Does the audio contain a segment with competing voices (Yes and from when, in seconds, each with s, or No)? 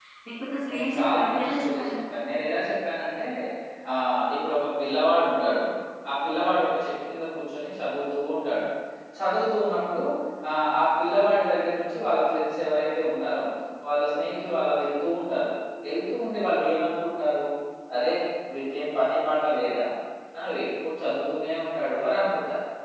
Yes, from 0.7 s